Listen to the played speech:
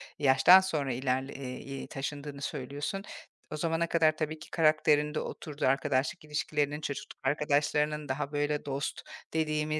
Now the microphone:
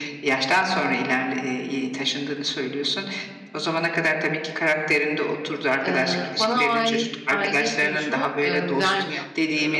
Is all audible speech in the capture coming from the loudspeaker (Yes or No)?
No